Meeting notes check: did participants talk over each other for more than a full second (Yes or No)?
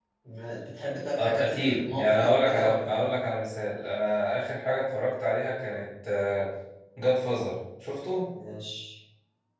Yes